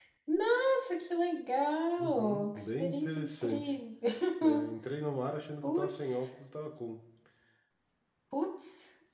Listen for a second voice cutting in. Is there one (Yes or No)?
Yes